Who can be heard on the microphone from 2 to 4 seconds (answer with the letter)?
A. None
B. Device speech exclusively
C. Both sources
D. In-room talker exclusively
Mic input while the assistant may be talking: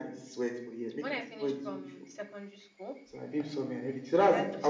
C